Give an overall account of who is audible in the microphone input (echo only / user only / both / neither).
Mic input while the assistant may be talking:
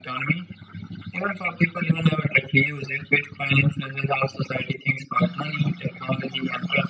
echo only